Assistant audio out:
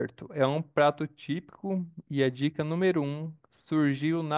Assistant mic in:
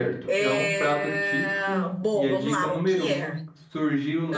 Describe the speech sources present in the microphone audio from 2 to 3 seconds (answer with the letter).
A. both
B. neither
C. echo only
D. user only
A